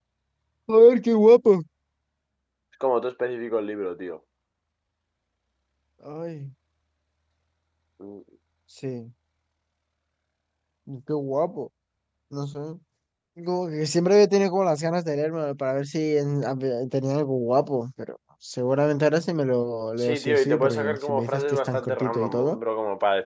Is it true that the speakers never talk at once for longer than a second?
No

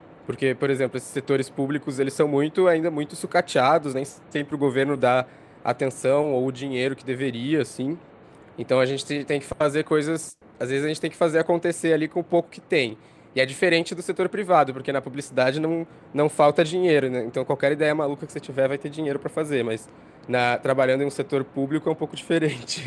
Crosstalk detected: No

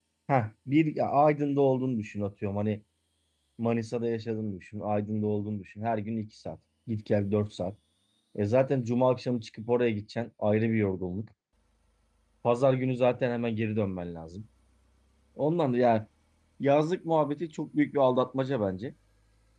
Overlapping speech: No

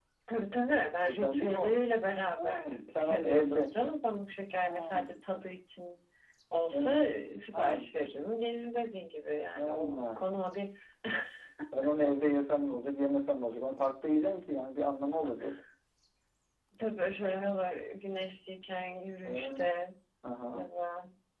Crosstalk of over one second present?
Yes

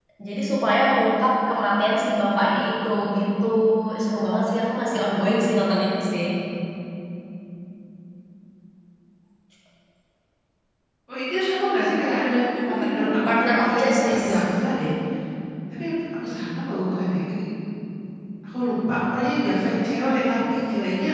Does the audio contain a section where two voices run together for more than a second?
Yes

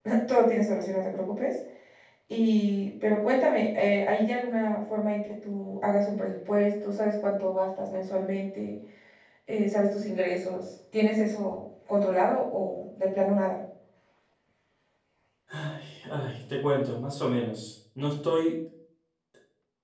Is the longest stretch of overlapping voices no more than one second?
Yes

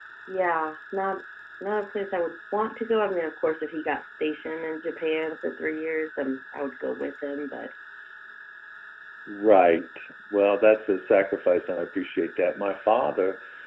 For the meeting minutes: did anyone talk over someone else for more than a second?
No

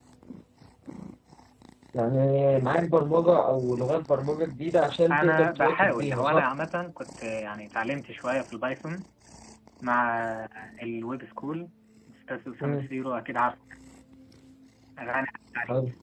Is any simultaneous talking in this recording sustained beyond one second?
Yes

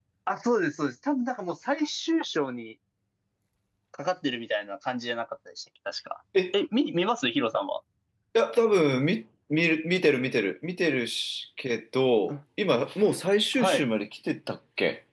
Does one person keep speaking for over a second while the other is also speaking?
No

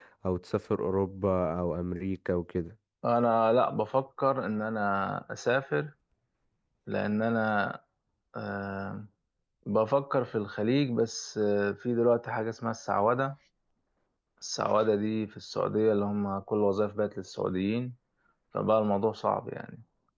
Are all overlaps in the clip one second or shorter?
Yes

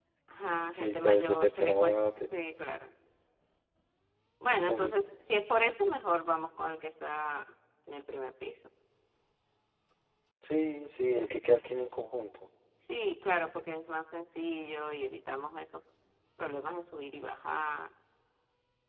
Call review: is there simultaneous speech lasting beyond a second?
Yes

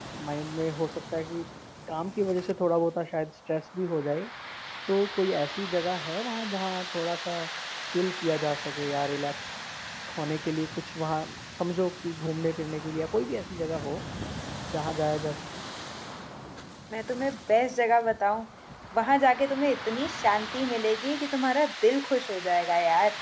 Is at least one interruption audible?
No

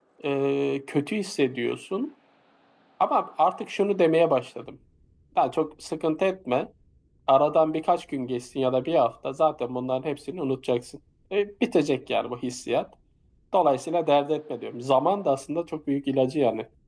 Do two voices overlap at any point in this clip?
No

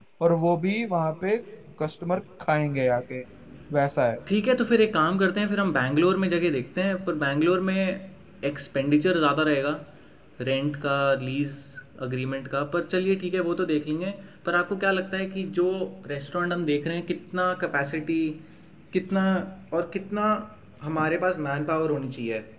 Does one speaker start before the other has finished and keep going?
No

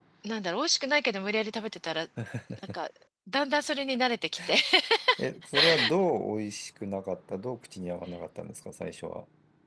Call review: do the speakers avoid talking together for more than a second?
Yes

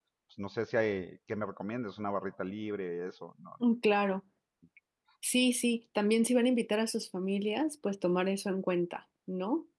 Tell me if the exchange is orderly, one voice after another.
Yes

